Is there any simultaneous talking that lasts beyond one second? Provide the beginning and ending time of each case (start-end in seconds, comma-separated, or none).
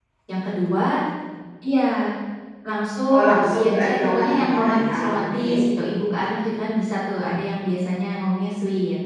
3.1-5.6